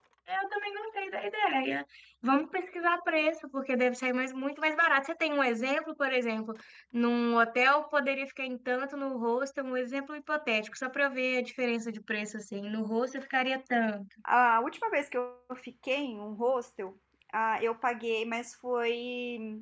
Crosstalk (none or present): none